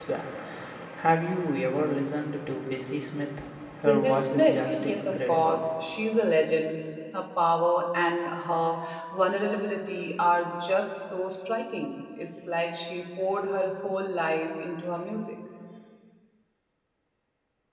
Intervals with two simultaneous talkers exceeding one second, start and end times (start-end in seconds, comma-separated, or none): 3.8-5.6